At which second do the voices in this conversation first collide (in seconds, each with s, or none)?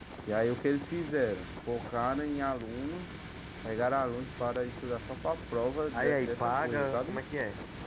5.9 s